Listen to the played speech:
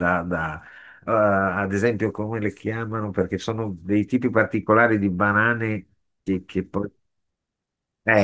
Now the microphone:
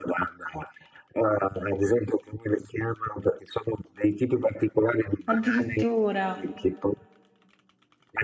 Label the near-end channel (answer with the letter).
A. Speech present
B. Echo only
A